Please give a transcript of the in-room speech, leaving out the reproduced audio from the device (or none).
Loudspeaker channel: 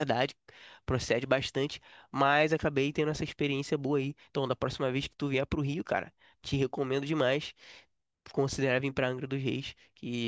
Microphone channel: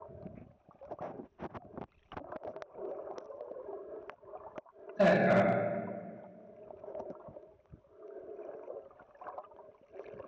É, cara.